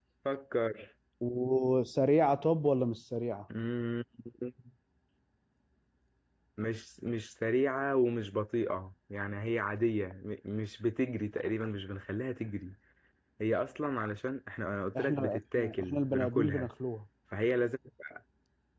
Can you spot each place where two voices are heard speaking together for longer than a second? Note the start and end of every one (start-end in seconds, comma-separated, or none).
15.0-16.7